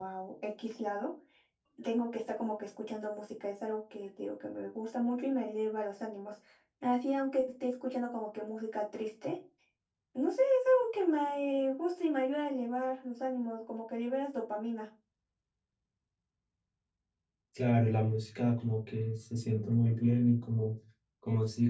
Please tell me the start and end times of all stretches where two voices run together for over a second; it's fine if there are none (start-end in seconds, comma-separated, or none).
none